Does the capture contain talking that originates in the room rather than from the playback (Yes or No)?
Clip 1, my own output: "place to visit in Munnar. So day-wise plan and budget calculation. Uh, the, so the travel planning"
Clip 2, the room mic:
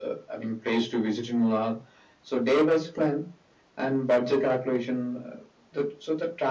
No